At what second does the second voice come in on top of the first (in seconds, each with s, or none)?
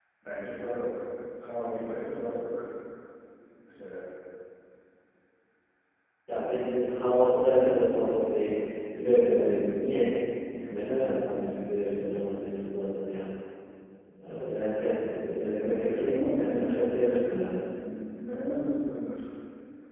15.6 s